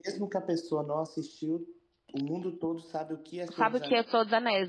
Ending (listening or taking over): taking over